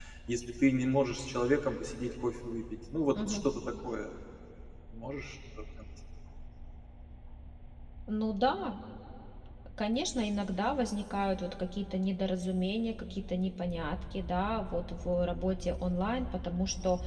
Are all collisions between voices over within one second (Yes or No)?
Yes